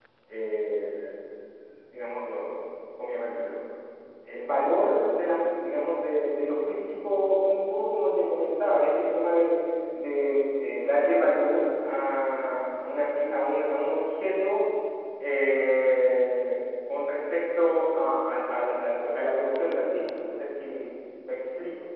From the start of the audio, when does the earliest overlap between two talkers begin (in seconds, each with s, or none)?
none